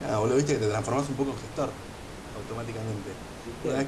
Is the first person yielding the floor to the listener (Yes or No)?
No